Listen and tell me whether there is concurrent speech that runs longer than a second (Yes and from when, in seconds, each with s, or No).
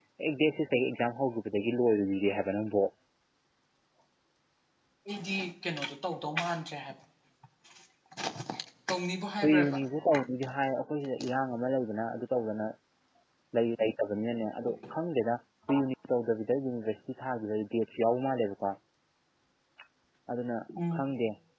No